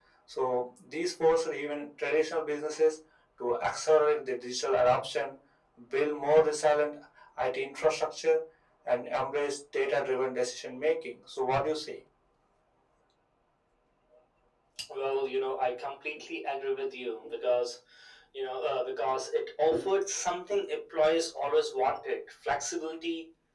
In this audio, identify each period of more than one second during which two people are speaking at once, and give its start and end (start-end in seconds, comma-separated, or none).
none